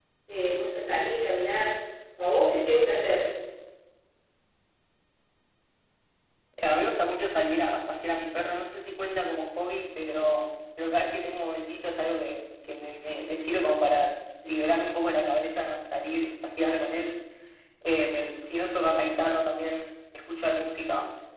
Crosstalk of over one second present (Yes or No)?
No